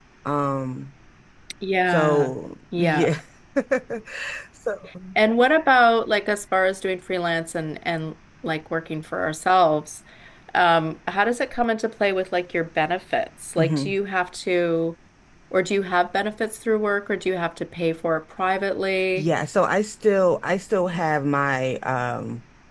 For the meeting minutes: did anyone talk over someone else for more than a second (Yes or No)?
No